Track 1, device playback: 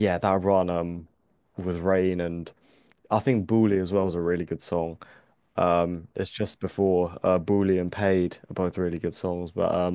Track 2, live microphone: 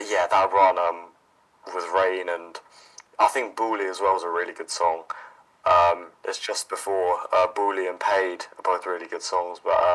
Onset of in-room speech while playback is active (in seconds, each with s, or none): none